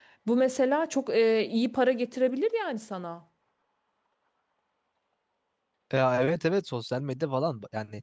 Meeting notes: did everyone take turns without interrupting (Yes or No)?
Yes